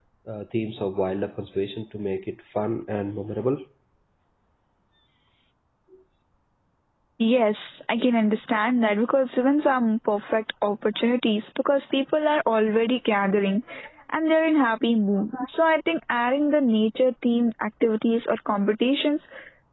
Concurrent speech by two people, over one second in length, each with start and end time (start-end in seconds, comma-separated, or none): none